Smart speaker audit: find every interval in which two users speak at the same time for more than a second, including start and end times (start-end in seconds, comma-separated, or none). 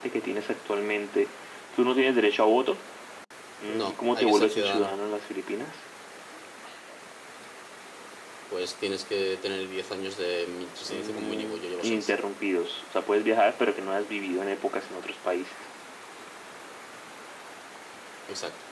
3.7-4.9, 10.8-12.1